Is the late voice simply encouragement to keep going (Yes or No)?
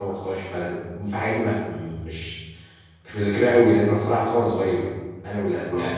Yes